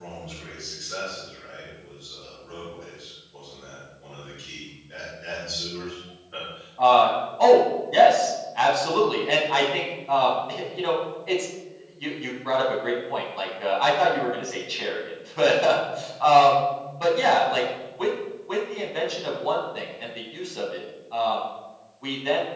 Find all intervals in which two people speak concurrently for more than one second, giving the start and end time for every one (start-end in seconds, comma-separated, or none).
none